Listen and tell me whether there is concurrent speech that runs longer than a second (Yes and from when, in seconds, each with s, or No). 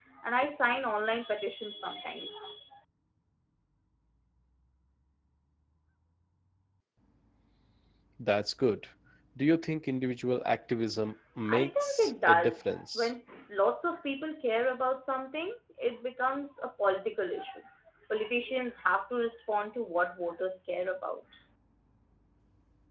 Yes, from 11.5 s